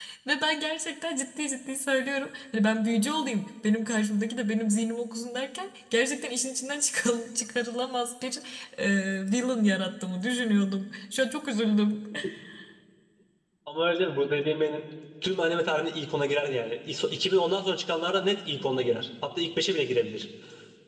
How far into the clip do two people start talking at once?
none

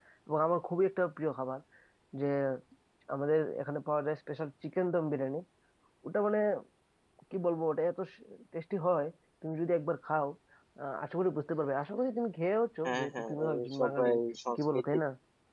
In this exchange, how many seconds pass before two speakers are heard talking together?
12.8 s

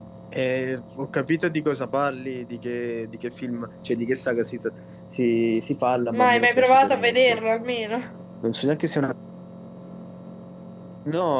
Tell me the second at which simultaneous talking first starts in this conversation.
6.1 s

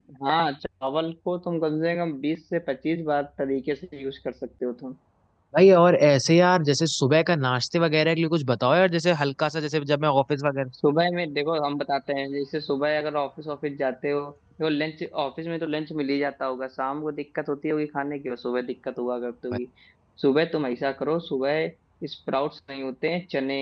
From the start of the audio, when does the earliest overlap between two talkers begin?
none

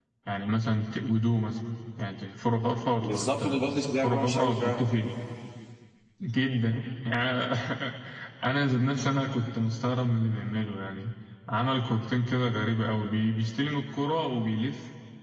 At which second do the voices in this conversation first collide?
3.0 s

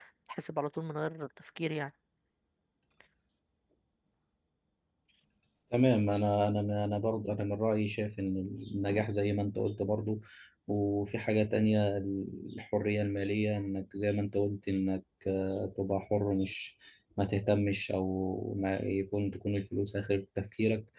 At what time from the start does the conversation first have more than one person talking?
none

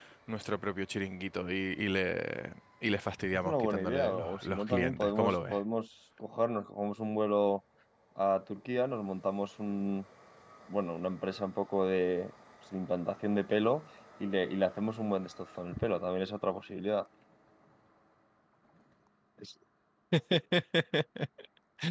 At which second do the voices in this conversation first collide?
3.3 s

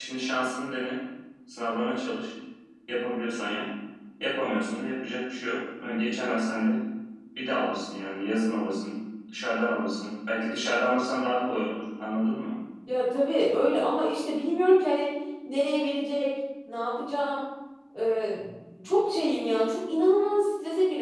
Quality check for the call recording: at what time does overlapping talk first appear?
none

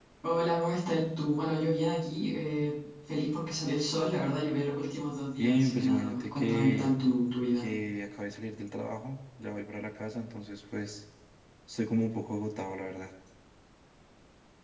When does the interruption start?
5.4 s

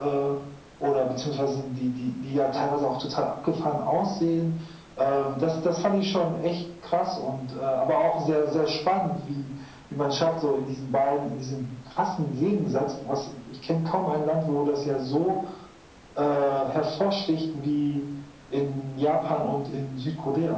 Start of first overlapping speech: none

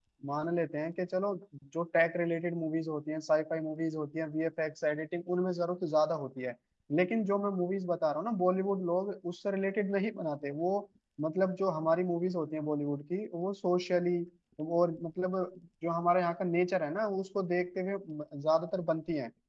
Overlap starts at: none

